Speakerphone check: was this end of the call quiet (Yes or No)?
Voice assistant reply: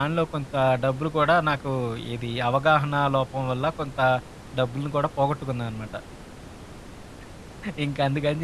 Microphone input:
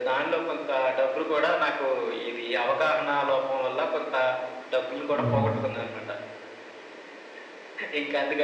No